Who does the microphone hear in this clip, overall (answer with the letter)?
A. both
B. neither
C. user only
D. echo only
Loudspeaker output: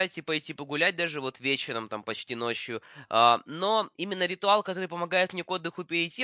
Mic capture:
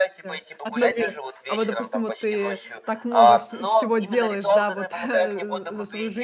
A